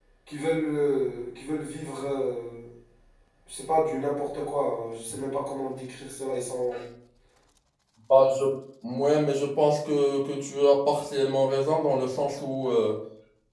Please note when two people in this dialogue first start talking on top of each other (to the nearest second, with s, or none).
none